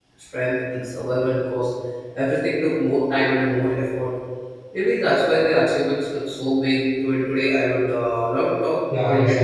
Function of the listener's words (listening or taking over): taking over